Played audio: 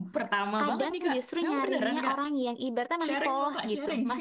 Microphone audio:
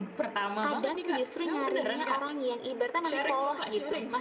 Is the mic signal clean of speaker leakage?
No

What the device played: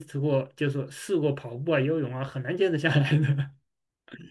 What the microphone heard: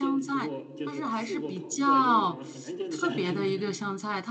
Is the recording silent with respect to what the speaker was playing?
No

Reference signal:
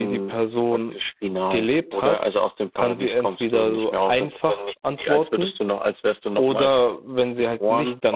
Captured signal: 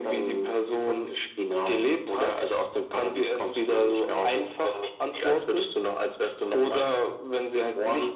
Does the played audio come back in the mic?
Yes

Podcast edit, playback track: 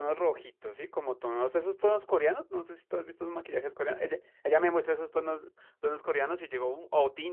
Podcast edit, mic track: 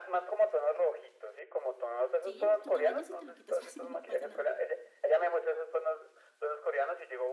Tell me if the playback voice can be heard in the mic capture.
Yes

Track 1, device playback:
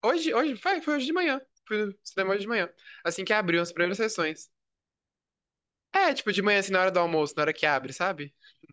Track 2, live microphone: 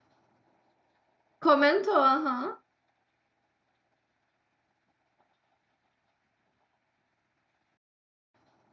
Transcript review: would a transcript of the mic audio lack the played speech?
Yes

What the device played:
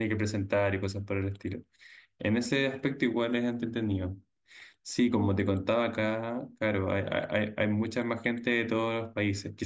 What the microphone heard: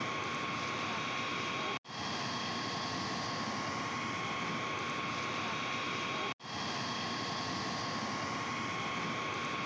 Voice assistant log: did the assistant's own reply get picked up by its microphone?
No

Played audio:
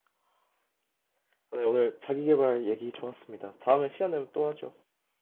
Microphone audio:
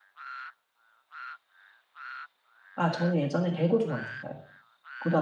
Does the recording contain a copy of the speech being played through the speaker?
No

